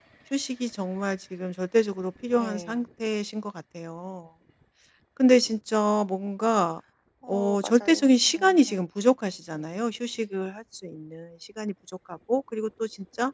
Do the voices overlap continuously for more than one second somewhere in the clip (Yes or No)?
Yes